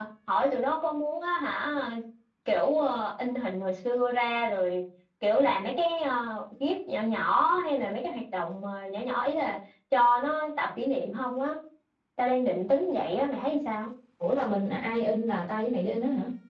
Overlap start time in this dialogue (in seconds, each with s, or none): none